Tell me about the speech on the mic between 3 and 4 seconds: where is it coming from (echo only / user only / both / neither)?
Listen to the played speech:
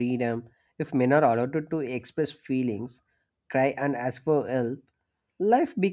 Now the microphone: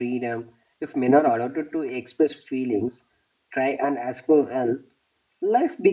echo only